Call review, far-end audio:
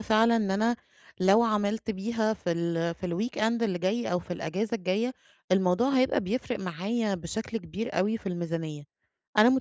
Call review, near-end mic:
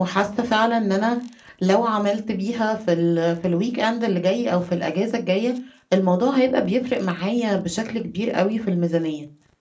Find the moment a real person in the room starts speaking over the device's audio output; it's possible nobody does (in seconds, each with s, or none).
none